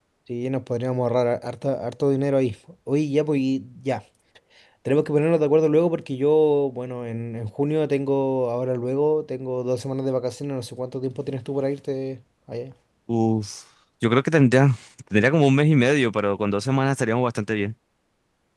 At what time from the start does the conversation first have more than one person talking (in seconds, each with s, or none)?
none